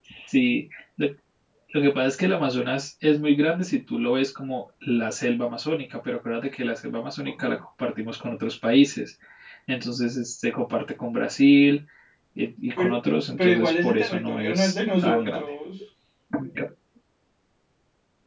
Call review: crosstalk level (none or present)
present